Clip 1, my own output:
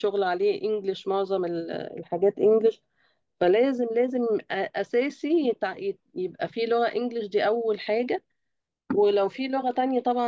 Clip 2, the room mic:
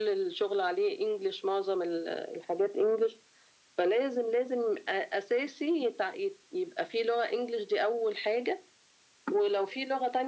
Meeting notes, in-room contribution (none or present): none